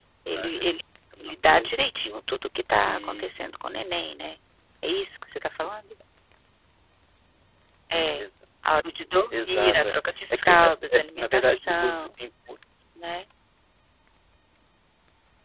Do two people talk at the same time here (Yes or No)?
Yes